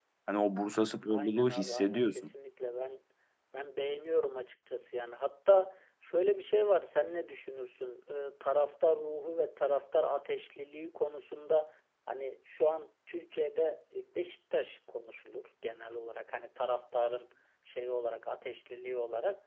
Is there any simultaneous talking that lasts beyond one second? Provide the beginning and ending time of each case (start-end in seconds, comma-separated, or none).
1.1-2.3